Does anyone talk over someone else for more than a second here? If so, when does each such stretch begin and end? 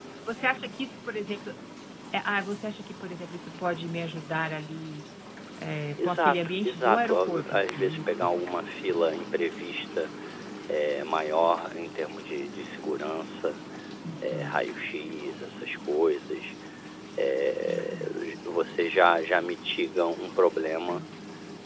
6.0-8.2

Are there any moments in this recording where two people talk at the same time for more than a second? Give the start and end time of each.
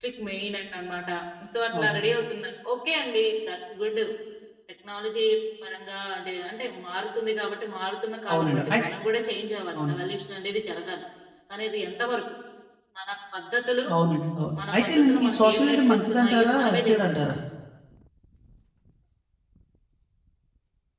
14.7-17.3

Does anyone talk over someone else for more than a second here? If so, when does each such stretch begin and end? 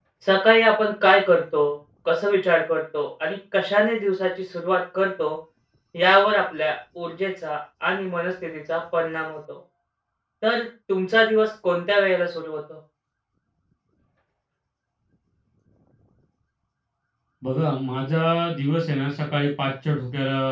none

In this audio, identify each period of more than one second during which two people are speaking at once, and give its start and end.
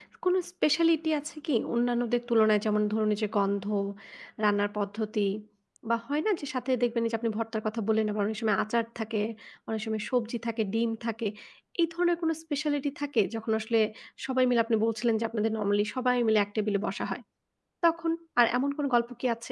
none

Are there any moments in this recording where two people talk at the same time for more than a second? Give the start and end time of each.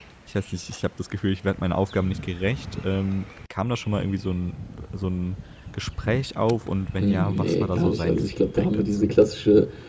7.0-9.2

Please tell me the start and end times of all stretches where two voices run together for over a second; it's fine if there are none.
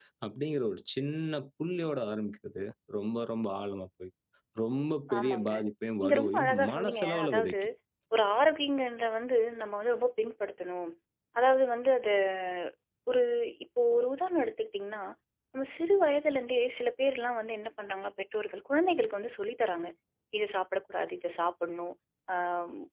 6.0-7.5

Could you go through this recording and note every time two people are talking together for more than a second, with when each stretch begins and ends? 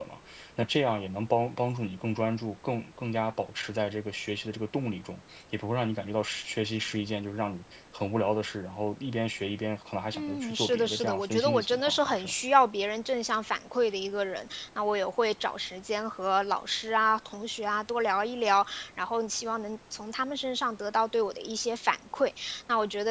10.1-12.3

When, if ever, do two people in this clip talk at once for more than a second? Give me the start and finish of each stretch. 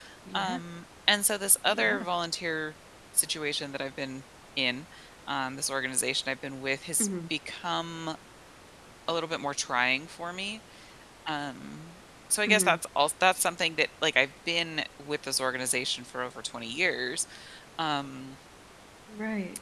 none

